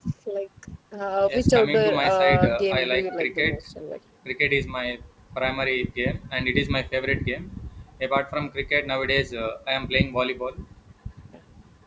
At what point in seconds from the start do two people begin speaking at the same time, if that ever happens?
1.3 s

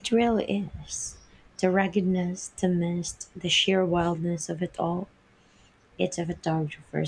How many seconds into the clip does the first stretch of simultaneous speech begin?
none

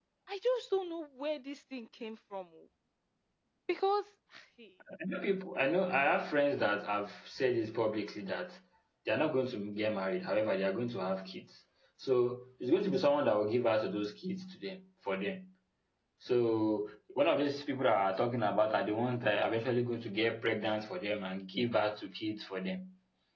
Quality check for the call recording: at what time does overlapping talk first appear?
none

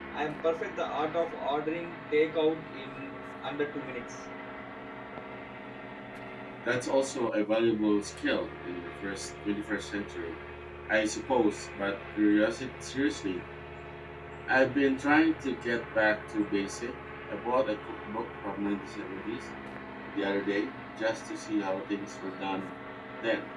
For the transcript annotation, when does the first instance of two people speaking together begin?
none

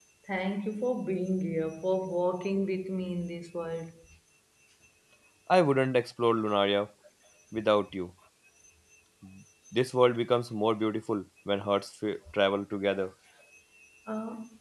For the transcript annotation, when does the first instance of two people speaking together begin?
none

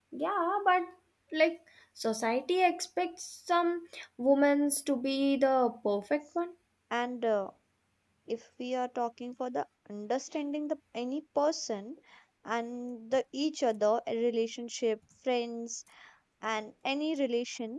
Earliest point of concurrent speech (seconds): none

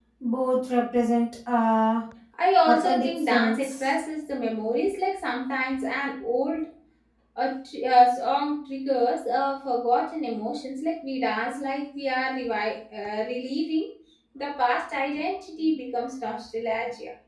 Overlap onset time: 2.7 s

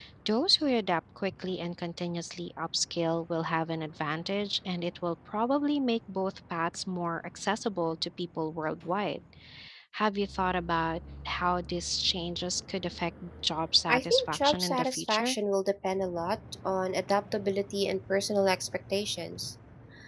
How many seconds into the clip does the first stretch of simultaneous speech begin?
13.9 s

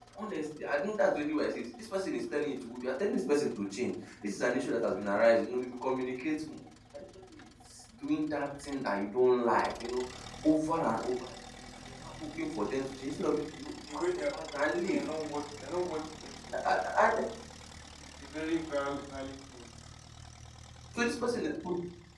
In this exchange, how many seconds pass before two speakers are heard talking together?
13.2 s

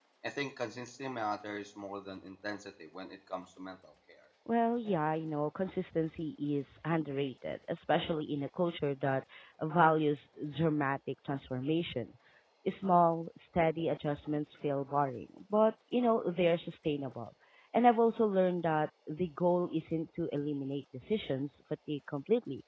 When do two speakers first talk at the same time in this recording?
none

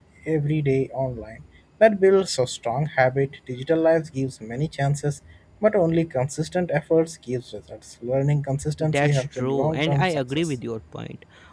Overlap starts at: 8.8 s

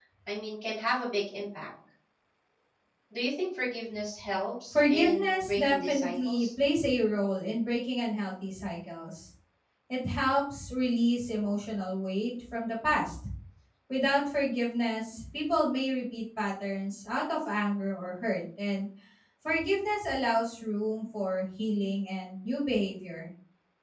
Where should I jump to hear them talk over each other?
4.7 s

